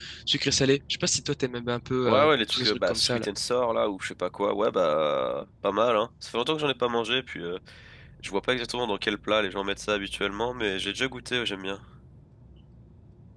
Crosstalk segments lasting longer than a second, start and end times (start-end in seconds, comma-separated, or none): 2.0-3.3